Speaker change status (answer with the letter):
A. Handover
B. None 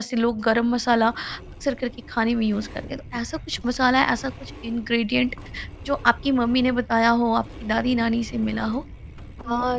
A